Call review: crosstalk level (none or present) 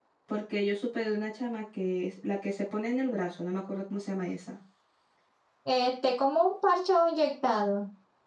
none